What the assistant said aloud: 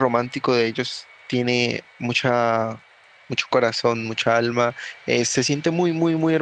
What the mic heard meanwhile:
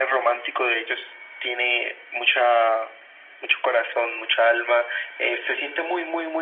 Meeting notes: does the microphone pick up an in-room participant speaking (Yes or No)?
No